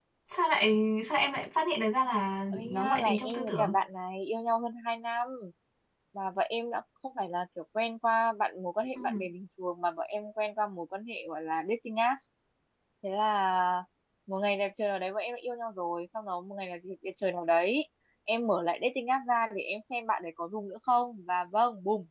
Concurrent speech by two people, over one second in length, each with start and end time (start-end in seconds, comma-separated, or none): 2.5-3.8